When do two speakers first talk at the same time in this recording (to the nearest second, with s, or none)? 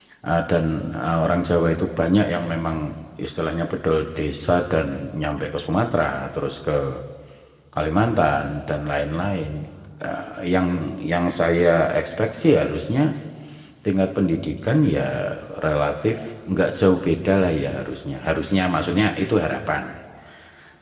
none